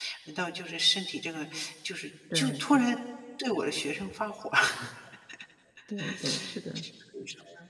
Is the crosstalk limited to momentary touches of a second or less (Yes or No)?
Yes